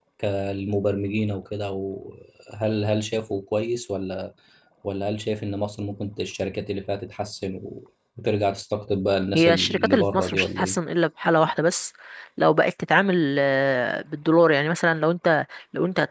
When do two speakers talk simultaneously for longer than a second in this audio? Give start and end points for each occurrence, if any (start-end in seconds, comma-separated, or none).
9.3-10.8